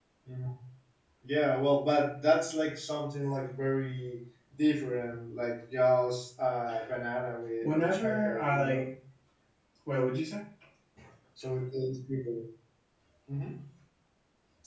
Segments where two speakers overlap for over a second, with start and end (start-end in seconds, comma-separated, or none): 7.6-8.8